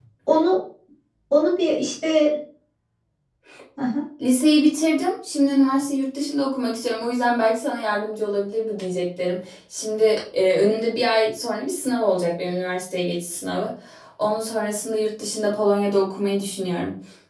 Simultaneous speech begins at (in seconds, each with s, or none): none